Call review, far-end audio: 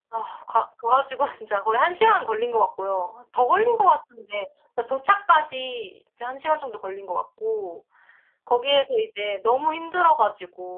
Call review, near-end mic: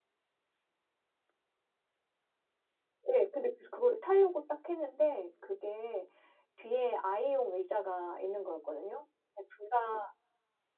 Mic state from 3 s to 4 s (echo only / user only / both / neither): user only